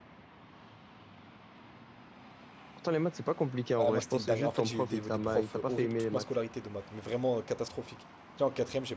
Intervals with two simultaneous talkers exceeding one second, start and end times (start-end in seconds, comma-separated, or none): 3.8-6.2